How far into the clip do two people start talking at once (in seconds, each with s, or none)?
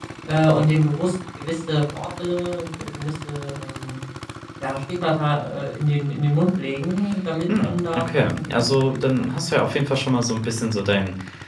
7.5 s